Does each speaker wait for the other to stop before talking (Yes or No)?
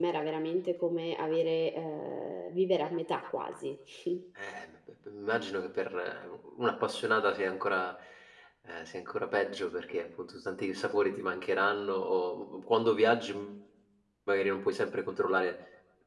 Yes